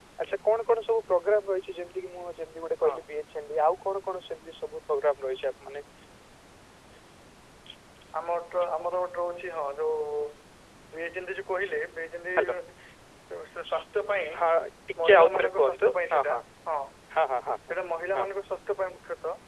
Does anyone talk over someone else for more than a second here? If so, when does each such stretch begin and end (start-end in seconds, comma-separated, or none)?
15.0-16.4